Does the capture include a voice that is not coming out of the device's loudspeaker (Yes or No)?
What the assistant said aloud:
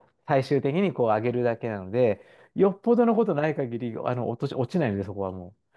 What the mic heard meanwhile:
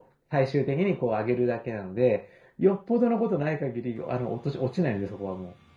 No